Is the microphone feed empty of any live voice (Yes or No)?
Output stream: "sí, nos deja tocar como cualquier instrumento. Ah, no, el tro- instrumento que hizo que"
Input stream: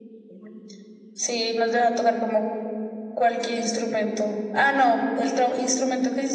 Yes